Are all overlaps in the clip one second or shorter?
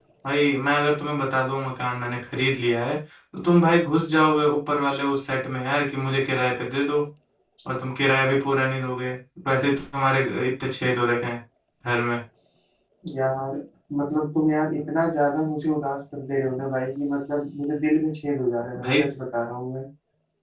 Yes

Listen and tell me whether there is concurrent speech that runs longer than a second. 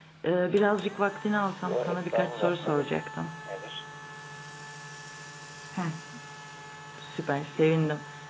Yes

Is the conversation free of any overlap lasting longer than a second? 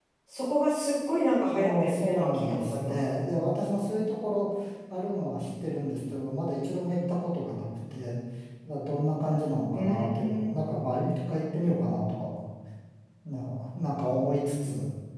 No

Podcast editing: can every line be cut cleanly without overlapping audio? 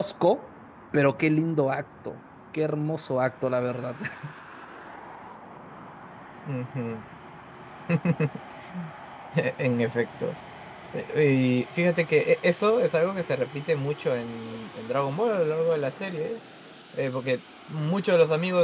Yes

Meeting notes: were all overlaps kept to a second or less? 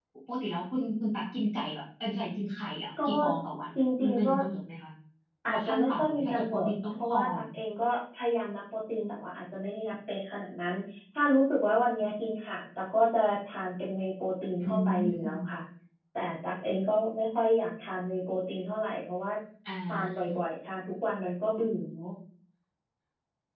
No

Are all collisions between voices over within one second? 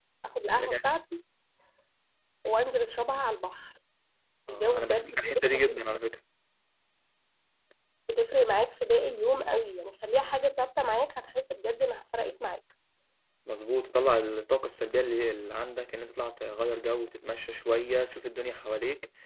No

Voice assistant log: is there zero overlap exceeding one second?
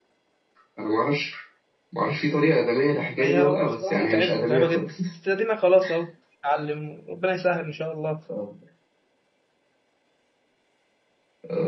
No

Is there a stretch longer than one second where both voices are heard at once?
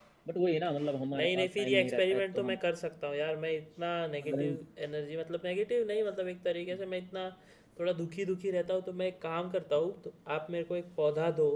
Yes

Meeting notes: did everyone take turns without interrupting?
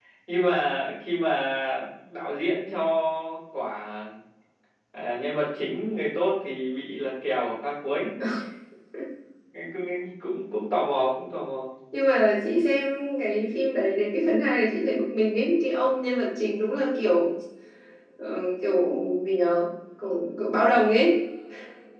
Yes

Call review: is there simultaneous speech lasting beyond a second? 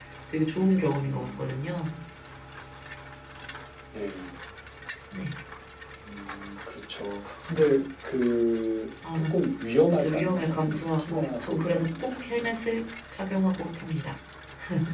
Yes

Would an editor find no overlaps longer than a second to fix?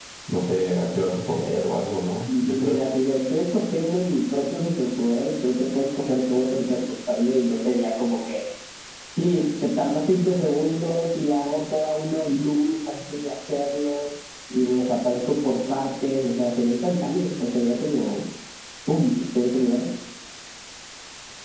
Yes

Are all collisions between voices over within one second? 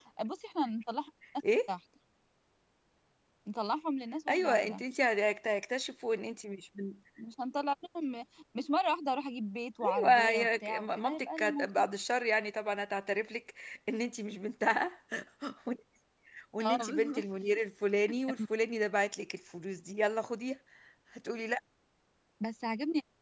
No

